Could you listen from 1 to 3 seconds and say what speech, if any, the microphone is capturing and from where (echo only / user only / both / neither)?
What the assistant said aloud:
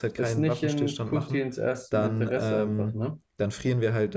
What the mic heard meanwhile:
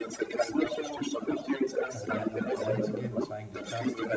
both